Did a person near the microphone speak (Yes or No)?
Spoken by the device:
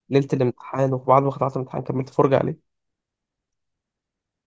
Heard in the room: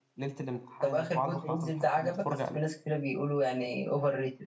Yes